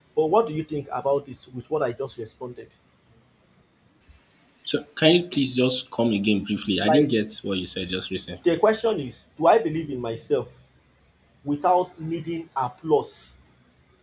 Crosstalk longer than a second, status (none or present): none